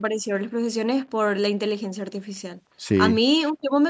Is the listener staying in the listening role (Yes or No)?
Yes